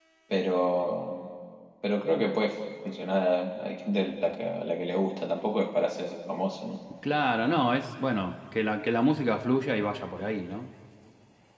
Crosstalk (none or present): none